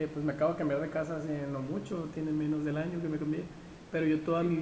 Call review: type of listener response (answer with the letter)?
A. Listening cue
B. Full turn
A